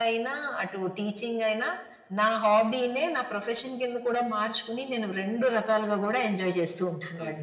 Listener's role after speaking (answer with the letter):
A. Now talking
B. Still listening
A